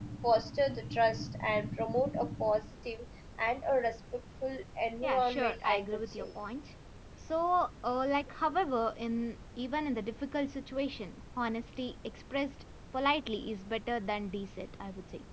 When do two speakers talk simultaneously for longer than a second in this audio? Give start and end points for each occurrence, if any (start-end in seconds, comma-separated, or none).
5.0-6.3